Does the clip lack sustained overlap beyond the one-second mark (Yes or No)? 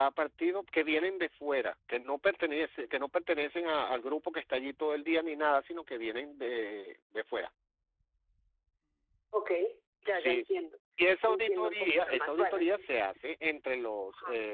No